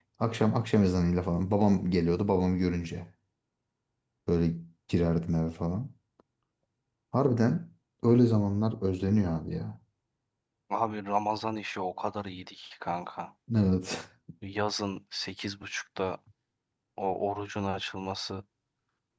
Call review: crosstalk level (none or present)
none